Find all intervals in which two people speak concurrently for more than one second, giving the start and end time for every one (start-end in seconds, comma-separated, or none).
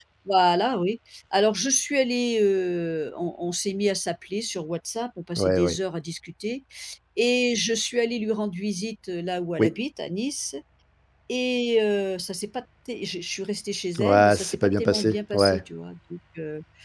14.0-15.6